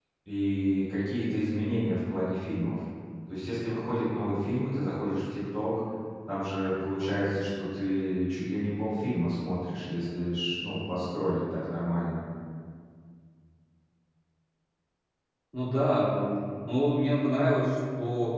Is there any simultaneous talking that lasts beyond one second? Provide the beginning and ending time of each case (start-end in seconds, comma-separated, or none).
none